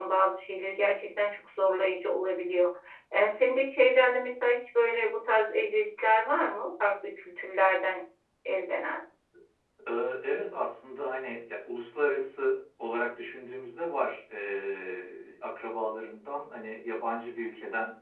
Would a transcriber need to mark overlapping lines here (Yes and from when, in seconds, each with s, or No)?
No